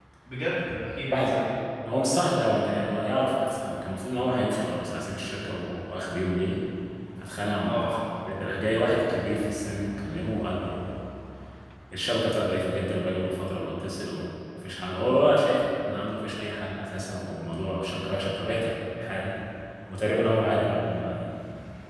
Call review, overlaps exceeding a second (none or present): none